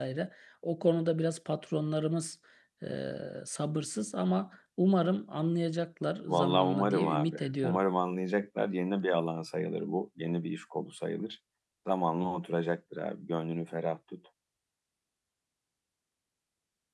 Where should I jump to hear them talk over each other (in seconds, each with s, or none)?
6.3 s